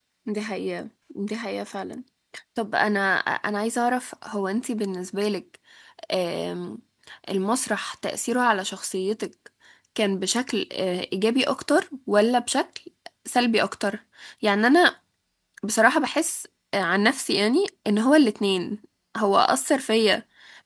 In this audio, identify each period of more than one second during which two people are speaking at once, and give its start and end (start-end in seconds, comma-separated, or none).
none